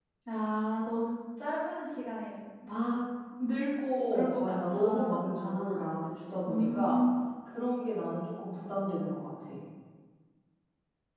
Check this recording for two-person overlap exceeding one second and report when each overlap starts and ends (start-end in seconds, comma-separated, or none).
4.0-5.8